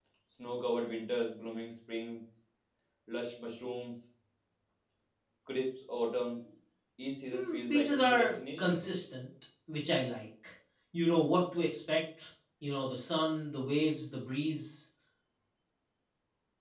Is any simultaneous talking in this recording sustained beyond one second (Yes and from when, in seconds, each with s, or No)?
Yes, from 7.3 s